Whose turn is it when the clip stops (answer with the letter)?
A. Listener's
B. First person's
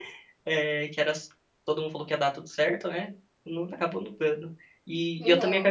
B